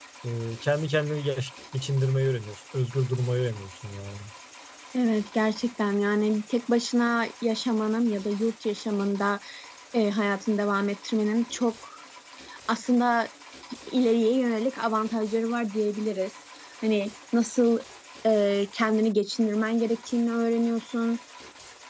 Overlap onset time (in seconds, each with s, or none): none